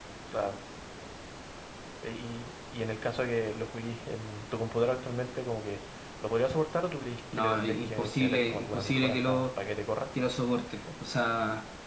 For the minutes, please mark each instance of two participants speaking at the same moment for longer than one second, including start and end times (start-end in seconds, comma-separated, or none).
7.3-9.5